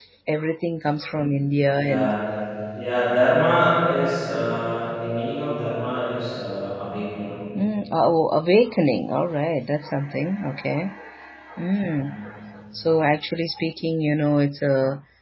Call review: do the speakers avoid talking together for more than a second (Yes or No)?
Yes